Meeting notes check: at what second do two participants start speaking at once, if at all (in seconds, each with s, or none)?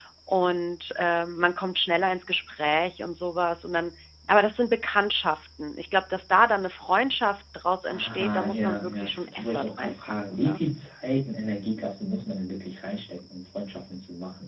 7.9 s